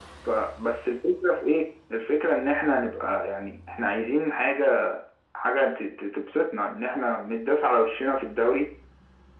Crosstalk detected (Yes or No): No